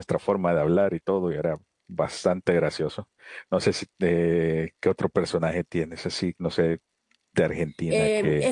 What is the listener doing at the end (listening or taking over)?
taking over